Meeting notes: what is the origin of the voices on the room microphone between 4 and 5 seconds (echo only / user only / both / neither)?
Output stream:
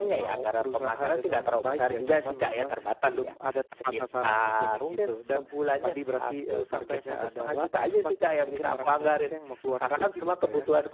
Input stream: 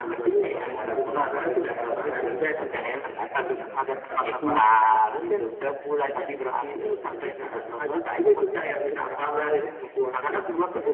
both